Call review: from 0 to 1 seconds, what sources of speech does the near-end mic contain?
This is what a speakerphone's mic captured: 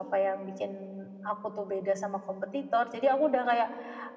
echo only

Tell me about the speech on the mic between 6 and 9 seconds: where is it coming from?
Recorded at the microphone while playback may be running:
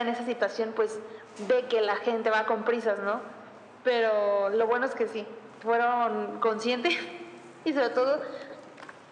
echo only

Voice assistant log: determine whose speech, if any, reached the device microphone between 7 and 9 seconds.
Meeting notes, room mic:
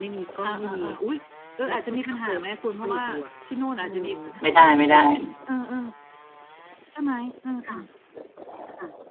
echo only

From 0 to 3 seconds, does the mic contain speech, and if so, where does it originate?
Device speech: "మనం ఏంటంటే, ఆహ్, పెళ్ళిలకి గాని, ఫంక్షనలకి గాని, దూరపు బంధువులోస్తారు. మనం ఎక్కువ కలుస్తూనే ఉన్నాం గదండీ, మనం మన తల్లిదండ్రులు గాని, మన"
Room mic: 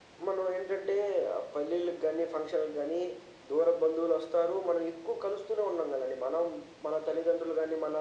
echo only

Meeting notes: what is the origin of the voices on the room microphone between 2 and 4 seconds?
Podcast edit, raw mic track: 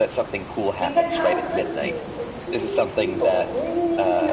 both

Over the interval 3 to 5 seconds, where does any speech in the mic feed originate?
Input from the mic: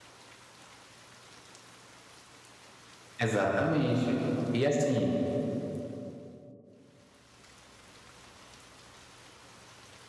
user only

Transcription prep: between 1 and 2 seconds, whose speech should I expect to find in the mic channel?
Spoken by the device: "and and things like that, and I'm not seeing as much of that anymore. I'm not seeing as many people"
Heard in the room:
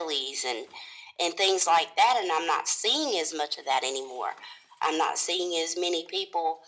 echo only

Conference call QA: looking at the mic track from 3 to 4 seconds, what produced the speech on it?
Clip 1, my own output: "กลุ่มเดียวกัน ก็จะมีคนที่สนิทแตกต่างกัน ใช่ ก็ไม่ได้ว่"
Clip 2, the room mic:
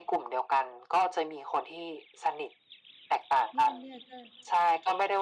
both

